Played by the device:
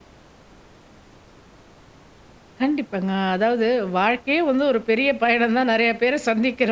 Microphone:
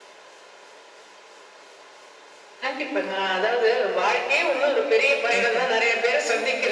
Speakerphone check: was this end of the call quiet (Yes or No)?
No